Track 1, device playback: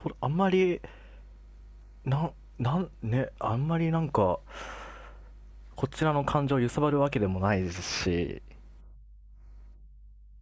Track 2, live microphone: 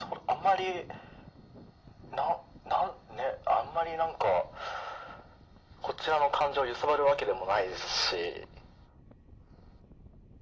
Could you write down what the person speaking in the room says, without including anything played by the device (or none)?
none